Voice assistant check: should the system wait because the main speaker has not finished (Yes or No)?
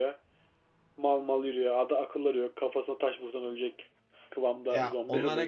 No